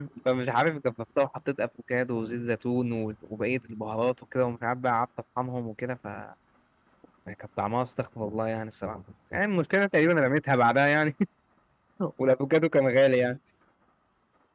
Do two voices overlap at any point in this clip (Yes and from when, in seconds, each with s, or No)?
No